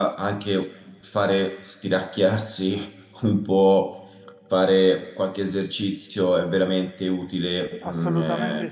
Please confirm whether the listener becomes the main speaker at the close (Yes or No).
Yes